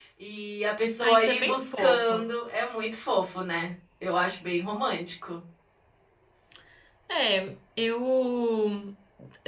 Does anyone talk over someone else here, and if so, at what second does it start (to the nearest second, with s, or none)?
1 s